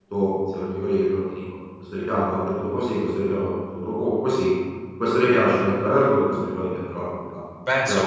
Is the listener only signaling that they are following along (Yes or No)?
No